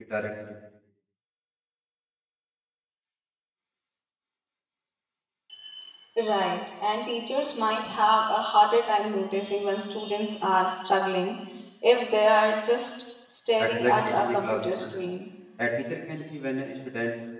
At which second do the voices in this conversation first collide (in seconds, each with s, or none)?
13.6 s